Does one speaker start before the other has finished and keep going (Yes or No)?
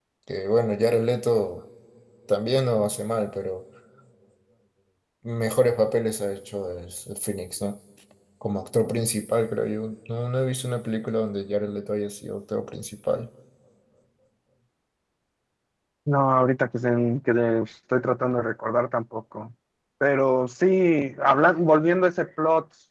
No